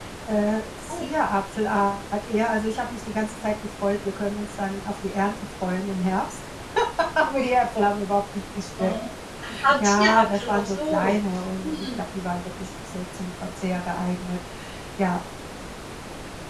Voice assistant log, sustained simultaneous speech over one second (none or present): present